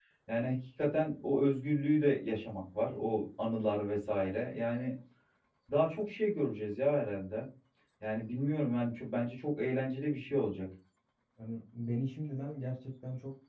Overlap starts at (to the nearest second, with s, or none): none